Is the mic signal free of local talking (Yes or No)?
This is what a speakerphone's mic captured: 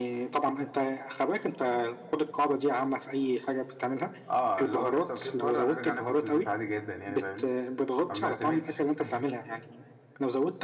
Yes